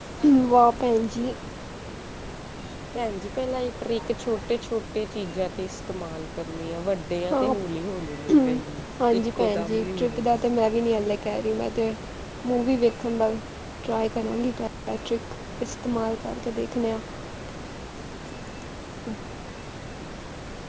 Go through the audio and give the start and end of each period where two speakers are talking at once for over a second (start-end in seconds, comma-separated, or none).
9.2-10.4